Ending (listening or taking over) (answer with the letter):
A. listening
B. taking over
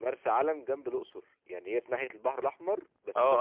B